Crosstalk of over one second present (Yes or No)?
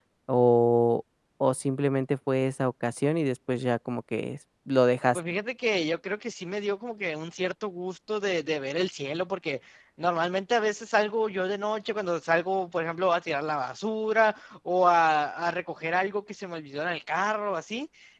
No